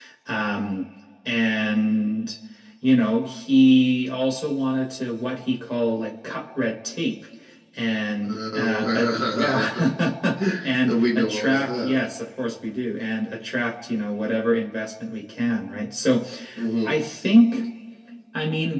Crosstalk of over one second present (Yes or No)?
Yes